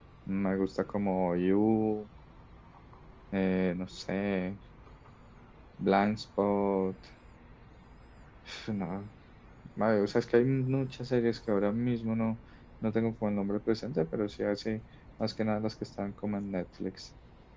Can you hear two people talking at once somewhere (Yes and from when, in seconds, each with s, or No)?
No